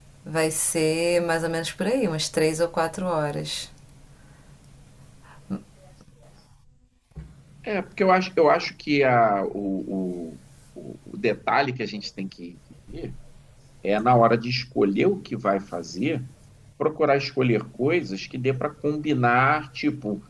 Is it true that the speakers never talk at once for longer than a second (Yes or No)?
Yes